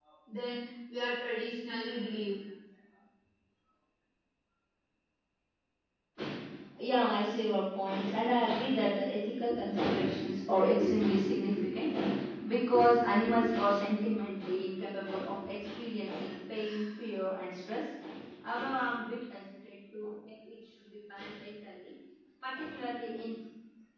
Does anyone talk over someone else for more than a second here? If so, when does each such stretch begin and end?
none

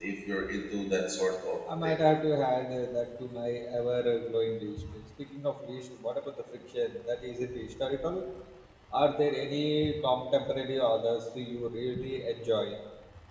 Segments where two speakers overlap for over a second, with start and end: none

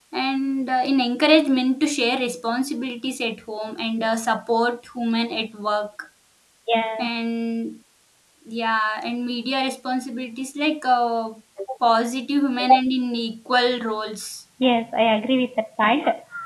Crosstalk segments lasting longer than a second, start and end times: none

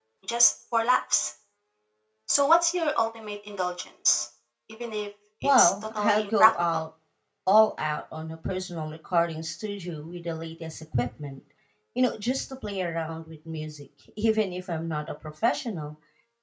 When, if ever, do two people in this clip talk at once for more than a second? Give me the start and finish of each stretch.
5.4-6.8

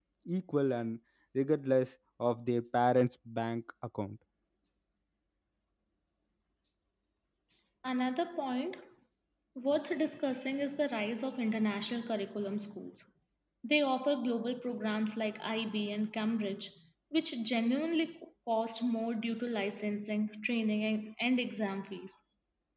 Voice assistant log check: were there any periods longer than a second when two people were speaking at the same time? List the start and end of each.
none

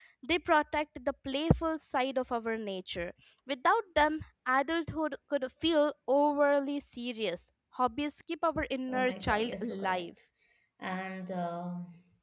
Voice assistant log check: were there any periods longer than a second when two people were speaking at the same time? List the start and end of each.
8.9-10.1

